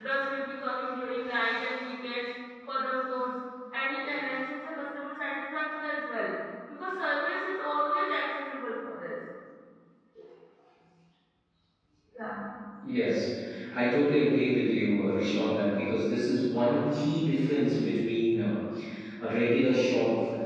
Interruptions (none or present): none